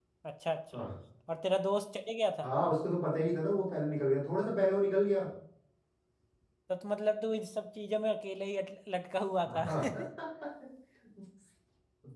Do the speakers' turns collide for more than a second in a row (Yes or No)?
No